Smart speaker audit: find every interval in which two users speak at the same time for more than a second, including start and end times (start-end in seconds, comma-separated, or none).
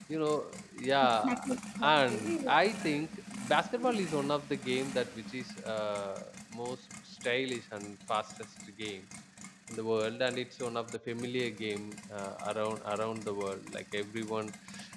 1.8-3.0